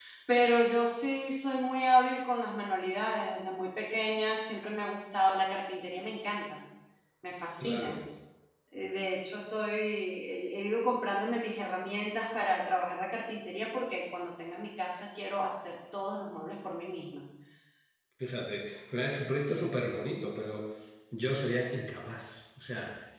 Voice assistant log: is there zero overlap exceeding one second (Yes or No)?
Yes